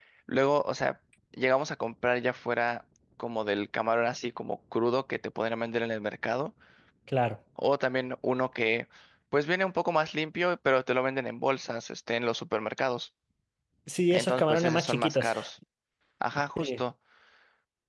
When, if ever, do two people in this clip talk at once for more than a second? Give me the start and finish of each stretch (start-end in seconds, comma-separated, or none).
14.1-15.3